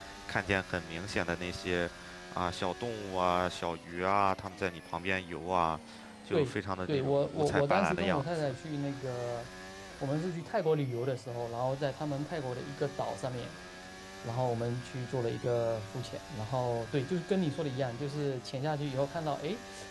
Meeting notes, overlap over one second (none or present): present